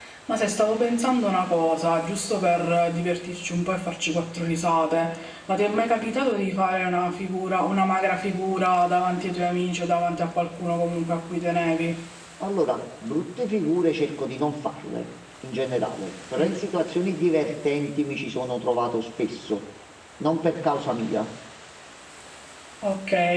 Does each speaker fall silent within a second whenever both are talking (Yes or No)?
Yes